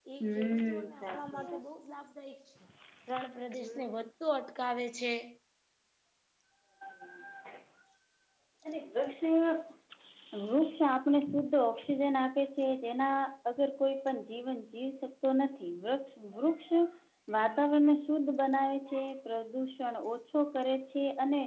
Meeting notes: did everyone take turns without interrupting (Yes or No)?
No